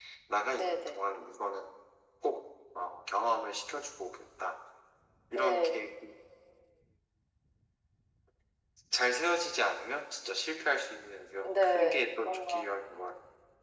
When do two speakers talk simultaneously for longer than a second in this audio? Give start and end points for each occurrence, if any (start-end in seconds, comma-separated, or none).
11.4-12.7